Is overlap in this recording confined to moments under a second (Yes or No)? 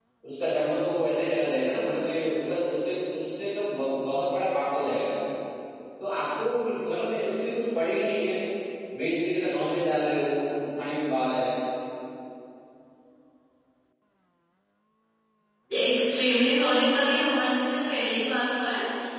Yes